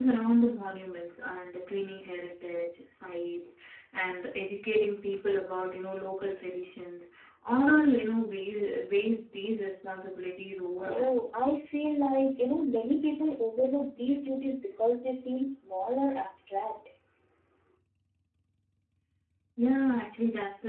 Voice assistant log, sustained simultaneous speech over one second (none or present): none